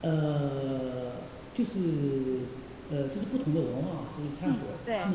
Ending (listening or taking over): listening